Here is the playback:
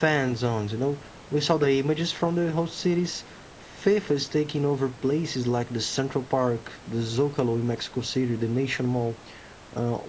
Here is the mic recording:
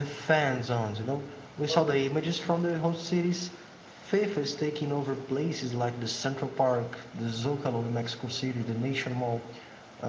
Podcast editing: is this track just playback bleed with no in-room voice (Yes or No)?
No